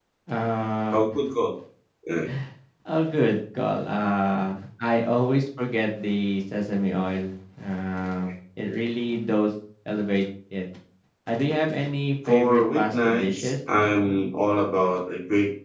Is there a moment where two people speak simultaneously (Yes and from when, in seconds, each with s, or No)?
Yes, from 12.3 s